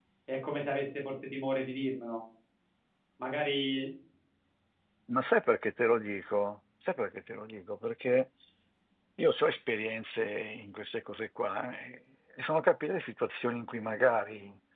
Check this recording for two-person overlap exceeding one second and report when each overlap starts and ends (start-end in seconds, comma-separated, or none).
none